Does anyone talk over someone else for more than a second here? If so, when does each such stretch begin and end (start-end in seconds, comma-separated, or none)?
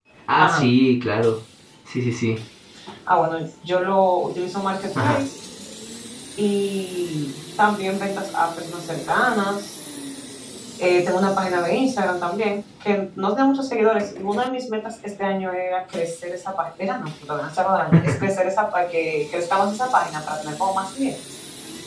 none